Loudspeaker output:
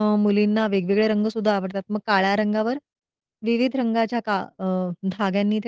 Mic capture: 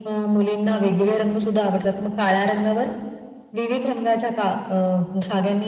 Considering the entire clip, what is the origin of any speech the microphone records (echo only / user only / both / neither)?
echo only